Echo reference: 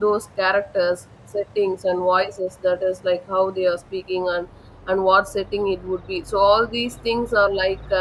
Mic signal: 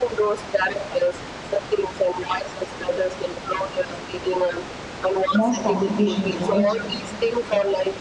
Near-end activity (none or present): present